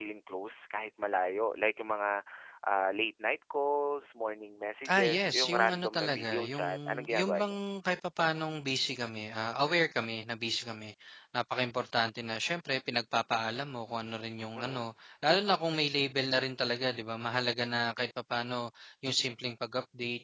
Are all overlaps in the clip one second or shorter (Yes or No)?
No